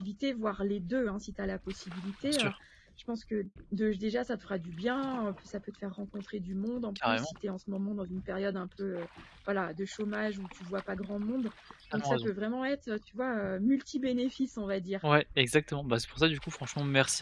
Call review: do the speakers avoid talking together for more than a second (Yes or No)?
Yes